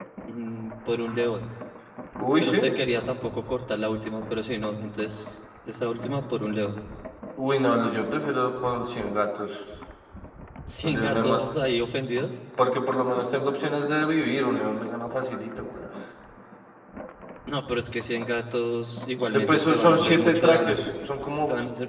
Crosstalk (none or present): present